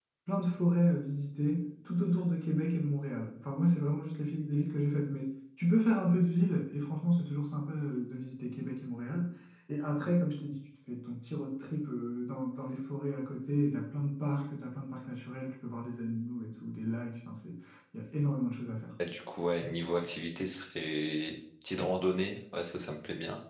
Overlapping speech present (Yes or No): No